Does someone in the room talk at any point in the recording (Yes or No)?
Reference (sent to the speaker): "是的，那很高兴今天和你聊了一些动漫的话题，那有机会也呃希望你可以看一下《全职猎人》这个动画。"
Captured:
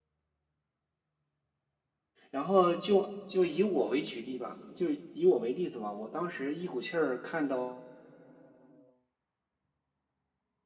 Yes